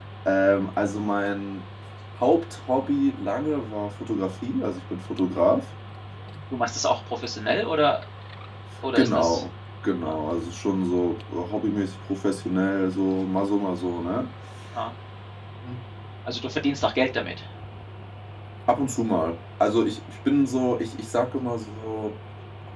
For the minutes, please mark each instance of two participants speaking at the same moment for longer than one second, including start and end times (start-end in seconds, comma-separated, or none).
none